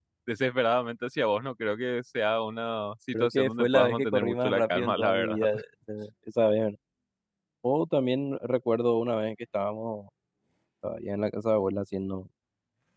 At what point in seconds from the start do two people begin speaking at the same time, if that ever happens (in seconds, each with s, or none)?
3.1 s